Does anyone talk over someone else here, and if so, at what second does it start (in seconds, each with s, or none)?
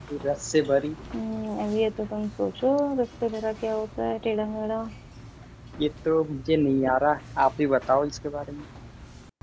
none